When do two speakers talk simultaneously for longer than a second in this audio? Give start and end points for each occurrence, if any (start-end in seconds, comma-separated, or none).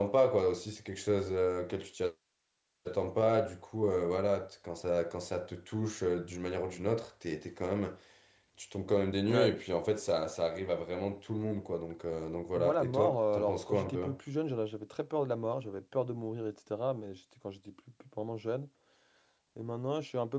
12.6-14.0